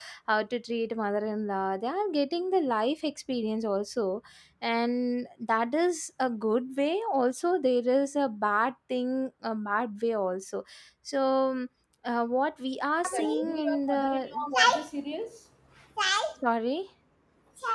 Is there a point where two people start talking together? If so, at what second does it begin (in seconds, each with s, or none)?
13.0 s